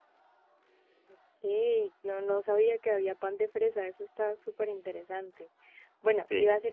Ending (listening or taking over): listening